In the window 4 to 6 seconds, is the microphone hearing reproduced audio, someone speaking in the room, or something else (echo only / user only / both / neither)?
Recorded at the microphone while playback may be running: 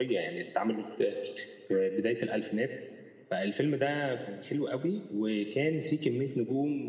user only